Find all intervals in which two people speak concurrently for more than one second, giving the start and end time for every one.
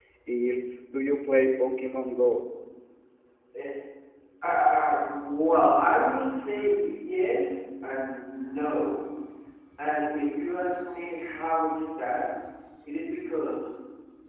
none

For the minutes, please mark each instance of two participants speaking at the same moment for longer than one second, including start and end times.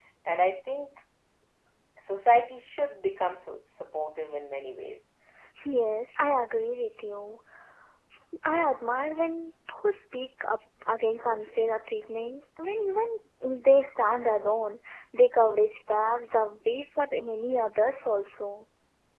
none

